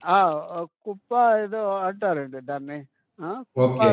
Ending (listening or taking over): listening